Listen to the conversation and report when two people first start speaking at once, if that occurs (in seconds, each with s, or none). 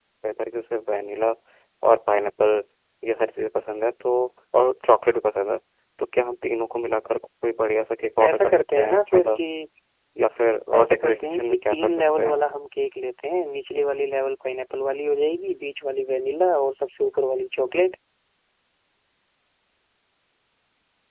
8.2 s